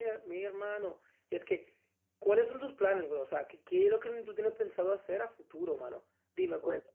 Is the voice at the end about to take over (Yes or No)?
No